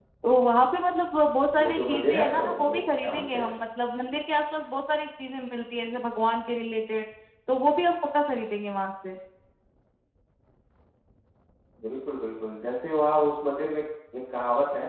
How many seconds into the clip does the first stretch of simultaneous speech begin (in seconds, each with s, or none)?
1.5 s